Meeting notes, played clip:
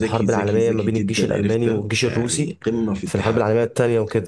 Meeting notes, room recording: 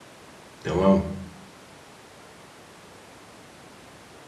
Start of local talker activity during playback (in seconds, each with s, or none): 0.6 s